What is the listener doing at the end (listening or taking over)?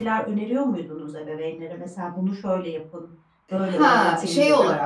taking over